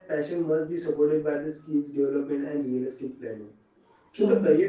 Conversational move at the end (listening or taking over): listening